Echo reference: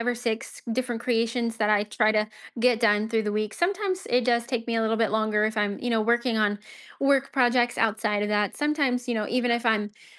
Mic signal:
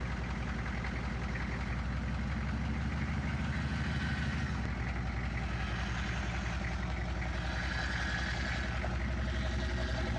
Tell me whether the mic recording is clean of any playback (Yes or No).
Yes